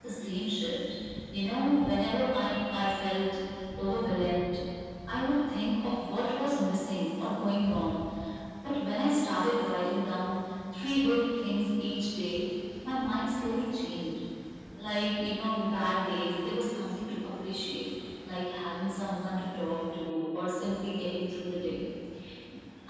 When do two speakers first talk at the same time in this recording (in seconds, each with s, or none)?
none